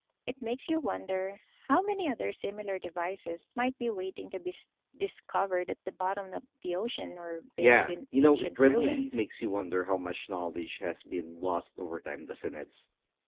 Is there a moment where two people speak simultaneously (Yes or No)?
Yes